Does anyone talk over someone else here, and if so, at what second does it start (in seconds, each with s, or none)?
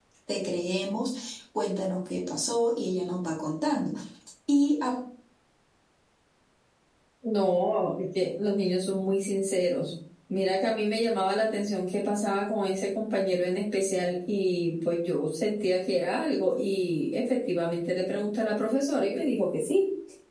none